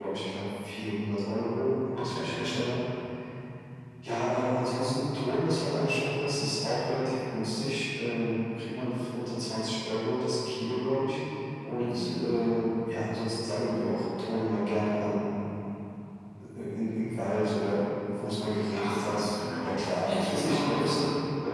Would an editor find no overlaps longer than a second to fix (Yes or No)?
No